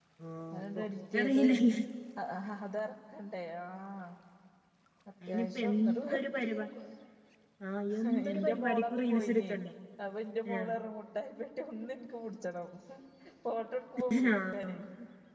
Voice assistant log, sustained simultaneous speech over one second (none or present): present